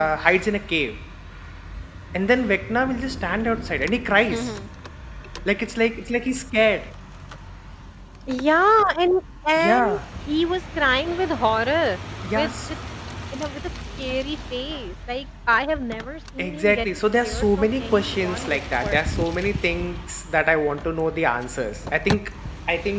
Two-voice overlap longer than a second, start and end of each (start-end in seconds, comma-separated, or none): 16.4-19.0